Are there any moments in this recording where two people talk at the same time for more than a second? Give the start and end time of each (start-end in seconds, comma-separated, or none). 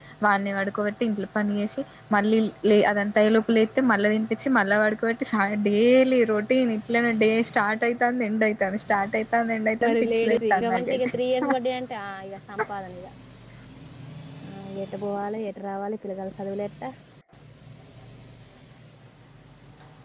9.9-11.1